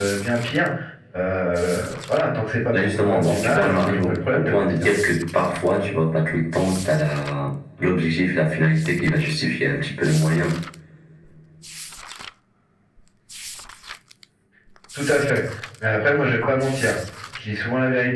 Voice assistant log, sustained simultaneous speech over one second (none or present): present